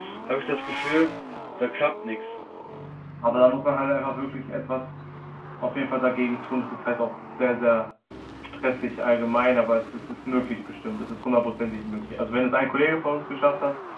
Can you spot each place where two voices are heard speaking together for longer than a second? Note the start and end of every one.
none

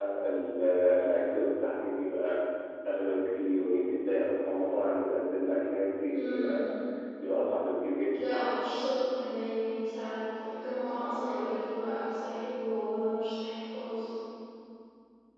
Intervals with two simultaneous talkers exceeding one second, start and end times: none

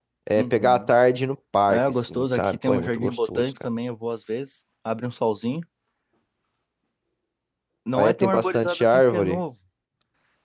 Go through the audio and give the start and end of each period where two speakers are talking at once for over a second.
1.7-3.5, 7.9-9.4

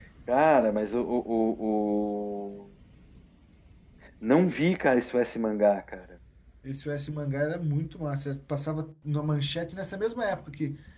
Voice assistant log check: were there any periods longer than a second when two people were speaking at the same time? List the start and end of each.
none

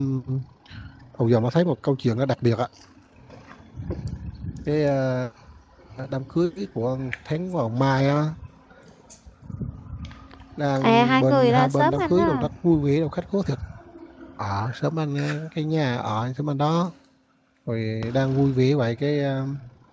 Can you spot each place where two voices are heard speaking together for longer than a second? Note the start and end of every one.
10.8-12.5

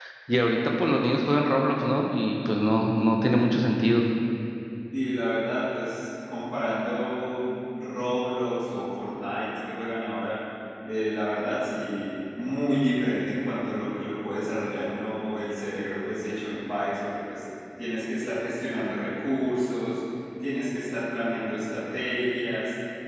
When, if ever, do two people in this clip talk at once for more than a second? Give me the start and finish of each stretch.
none

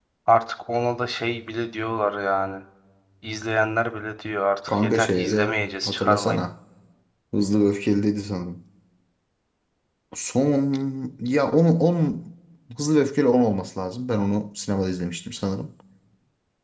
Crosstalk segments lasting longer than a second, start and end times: 4.7-6.4

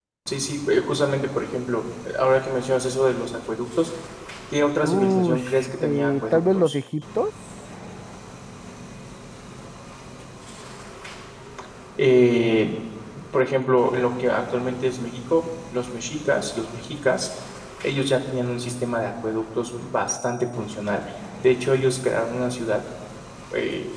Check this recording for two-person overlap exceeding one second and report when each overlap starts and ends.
4.8-6.8

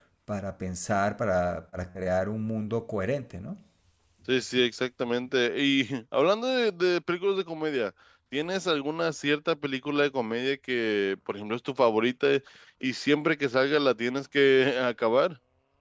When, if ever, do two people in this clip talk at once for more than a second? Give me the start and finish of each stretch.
none

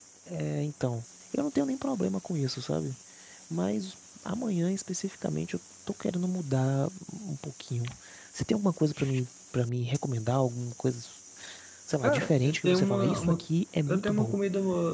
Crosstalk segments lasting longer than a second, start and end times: 12.0-13.4

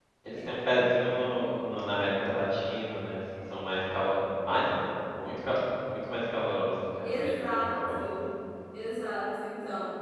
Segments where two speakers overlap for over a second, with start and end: 7.0-8.3

